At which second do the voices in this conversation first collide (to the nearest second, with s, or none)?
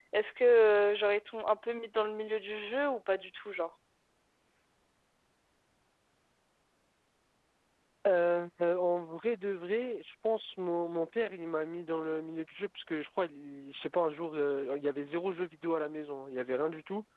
none